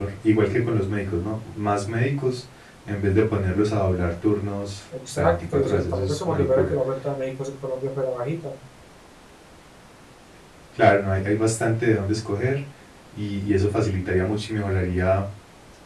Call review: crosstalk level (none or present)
present